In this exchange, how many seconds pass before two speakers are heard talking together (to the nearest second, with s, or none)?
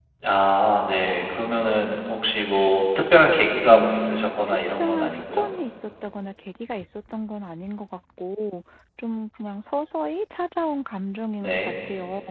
4 s